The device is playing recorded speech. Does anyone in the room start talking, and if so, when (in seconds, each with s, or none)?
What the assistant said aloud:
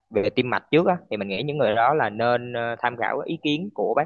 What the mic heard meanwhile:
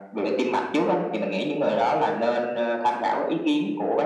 none